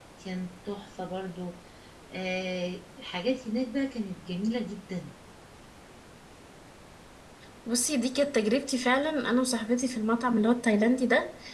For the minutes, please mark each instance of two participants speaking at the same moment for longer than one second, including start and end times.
none

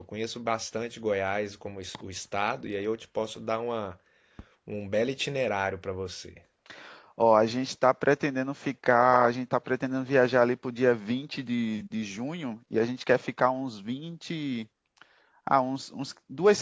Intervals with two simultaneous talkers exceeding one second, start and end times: none

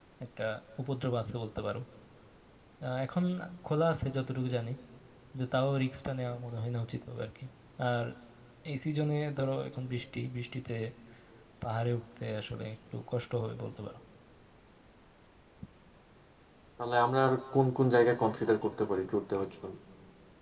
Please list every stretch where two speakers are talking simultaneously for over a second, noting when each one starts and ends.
none

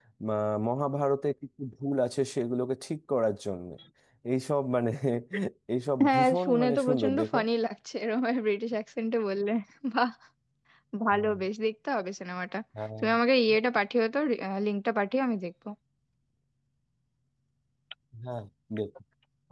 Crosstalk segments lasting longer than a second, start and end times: 6.0-7.4

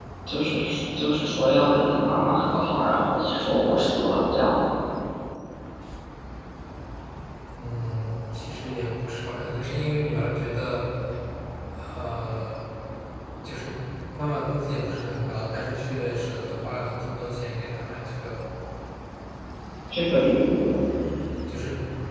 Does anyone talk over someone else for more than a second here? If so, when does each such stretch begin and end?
none

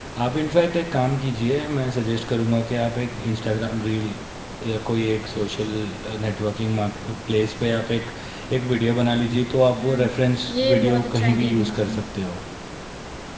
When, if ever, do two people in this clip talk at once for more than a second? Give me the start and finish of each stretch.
10.5-12.0

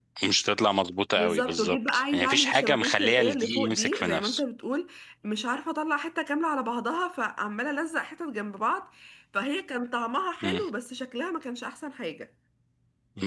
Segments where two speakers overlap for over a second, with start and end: 1.2-4.4

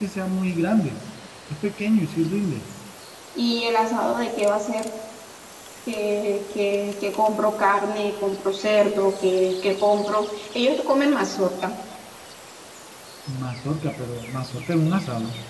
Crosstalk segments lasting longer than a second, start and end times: none

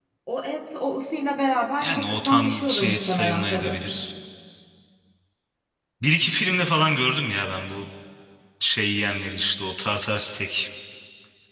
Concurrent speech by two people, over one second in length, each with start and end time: 1.8-3.8

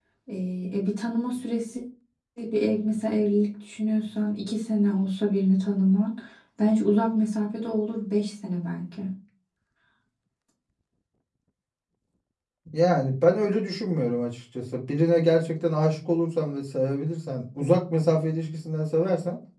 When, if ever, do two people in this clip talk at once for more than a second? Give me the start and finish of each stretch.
none

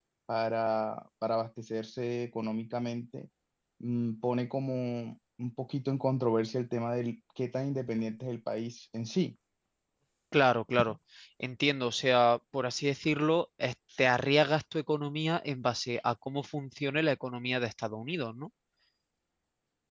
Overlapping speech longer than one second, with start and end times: none

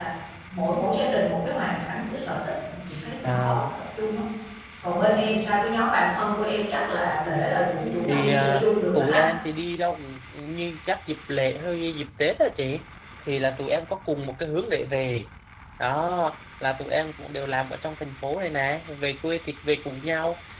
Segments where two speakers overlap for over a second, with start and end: 8.0-9.3

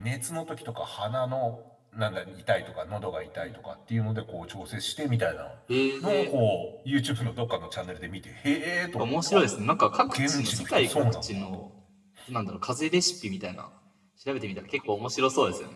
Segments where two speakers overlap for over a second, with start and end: 10.1-11.5

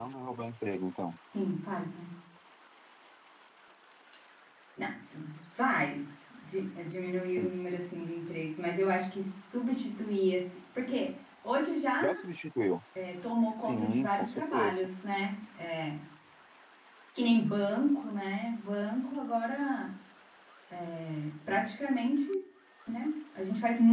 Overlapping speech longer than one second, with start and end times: 13.7-14.9

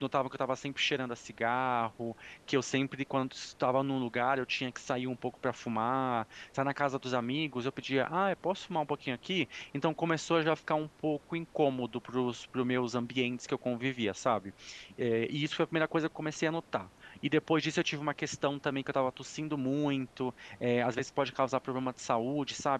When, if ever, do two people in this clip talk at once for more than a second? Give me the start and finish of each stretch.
none

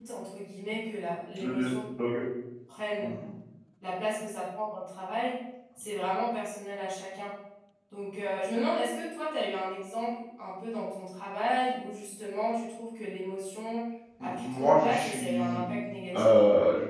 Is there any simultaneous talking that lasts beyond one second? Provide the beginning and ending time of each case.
14.2-15.6

